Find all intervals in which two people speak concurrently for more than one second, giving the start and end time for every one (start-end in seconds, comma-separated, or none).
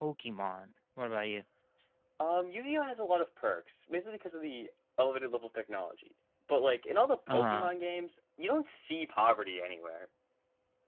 none